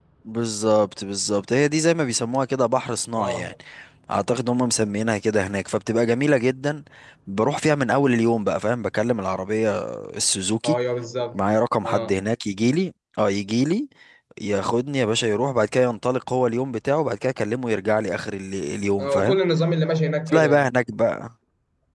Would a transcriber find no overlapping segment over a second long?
Yes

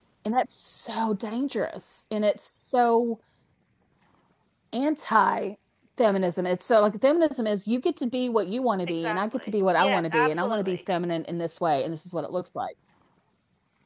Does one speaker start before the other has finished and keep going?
Yes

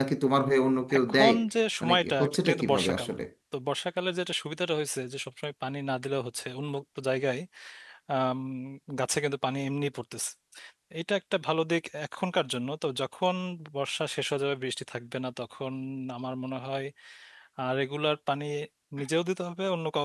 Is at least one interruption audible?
Yes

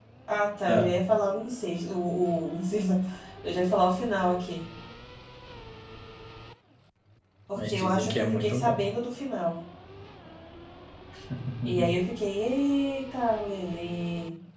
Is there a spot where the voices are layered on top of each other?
Yes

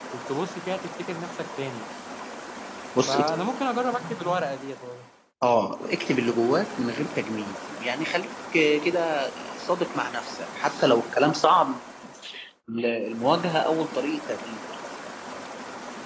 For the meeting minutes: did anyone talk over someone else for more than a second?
No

